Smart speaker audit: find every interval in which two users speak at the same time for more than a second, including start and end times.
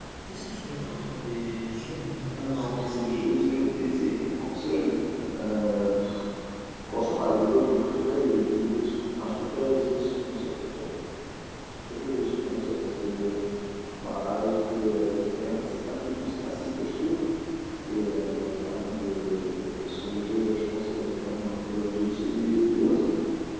2.3-3.6

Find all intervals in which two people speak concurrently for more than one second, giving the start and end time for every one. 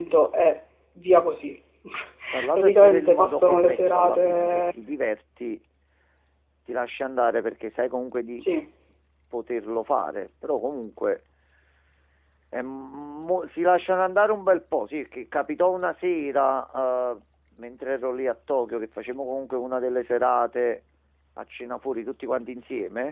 2.5-4.6

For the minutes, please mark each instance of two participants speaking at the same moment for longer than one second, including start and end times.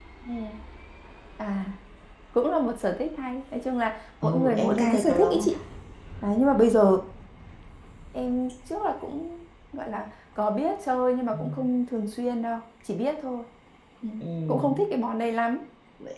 4.2-5.5

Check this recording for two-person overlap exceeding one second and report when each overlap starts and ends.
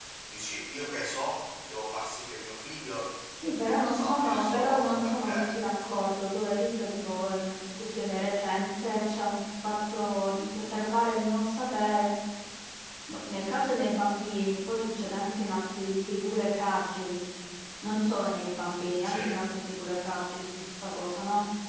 3.9-5.5

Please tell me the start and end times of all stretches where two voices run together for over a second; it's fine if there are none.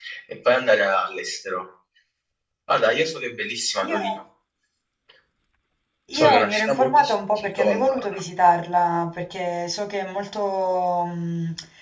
6.1-8.2

